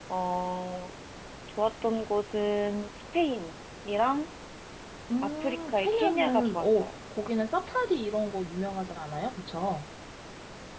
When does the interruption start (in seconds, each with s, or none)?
5.4 s